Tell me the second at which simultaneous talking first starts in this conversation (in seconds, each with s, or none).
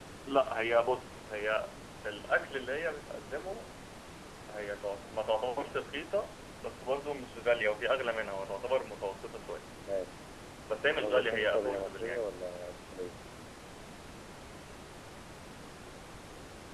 10.9 s